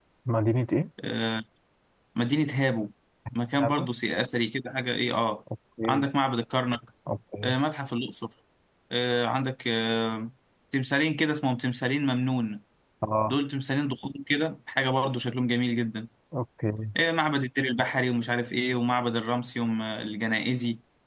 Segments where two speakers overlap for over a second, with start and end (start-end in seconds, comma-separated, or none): none